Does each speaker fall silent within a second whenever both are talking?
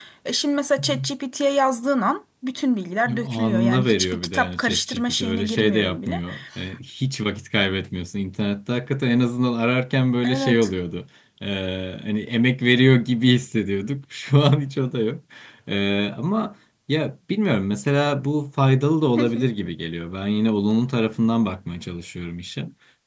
No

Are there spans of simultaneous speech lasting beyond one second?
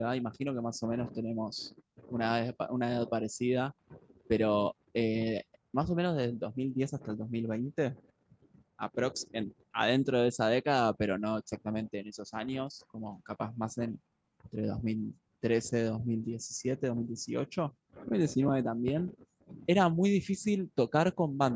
No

